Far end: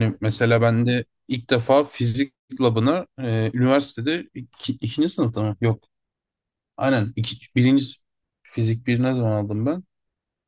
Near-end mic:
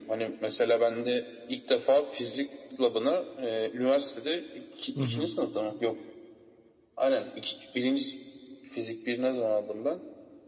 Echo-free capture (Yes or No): No